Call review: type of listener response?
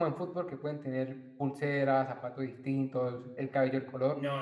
taking over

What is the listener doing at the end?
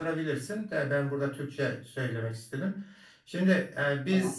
listening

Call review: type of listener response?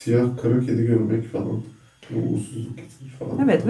taking over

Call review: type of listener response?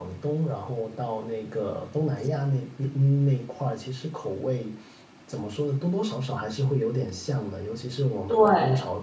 listening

